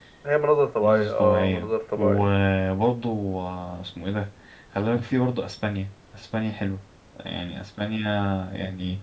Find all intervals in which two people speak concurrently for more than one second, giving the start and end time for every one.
0.8-2.3

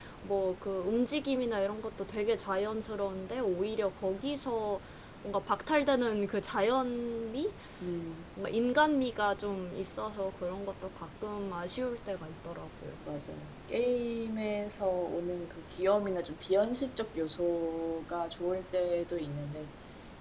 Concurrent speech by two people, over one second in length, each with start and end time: none

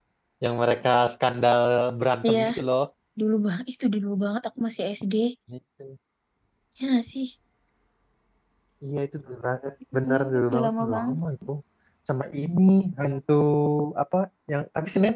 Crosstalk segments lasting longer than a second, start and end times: 9.9-11.2

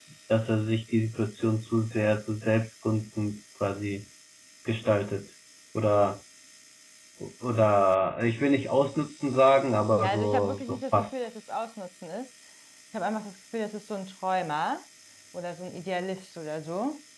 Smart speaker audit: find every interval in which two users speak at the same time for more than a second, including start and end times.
9.9-11.2

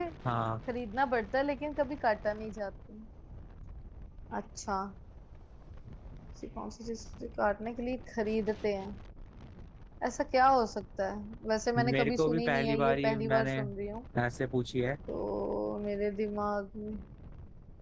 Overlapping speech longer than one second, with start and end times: 11.8-13.6

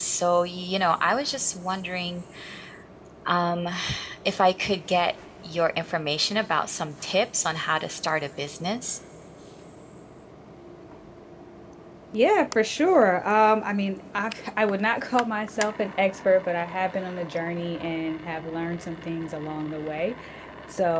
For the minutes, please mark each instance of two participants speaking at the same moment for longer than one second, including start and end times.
none

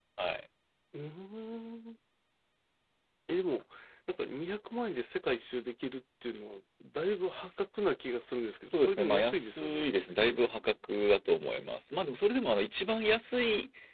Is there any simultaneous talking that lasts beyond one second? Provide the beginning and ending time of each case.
8.7-9.8

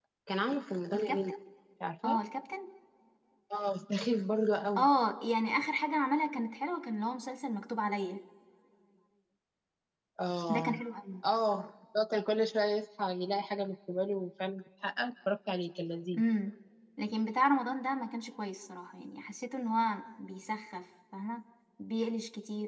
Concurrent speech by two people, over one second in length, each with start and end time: none

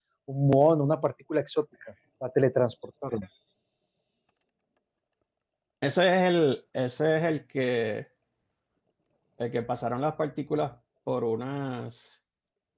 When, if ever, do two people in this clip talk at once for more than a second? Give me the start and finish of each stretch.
none

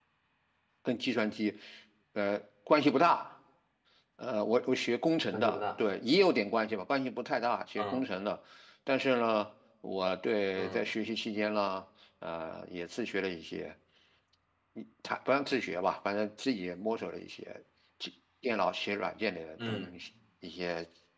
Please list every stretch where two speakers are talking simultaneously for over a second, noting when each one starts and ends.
none

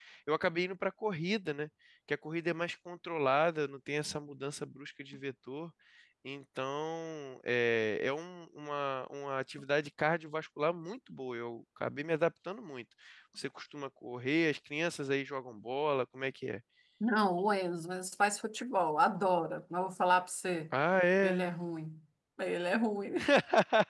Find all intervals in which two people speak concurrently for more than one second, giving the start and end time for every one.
none

